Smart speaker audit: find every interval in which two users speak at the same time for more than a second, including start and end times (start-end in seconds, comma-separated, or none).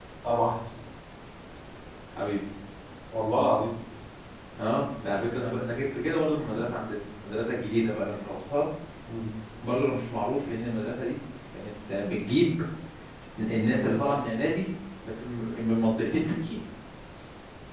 none